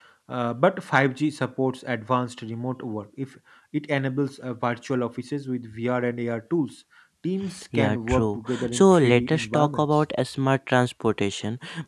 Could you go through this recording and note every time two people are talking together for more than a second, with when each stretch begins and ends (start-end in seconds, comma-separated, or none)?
7.8-9.9